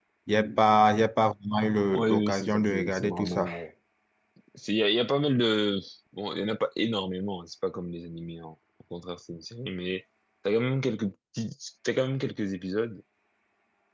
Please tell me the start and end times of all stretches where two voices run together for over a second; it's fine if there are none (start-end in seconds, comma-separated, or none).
1.9-3.5